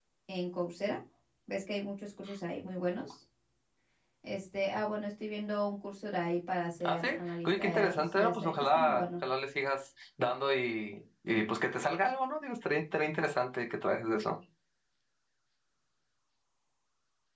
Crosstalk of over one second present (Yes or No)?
Yes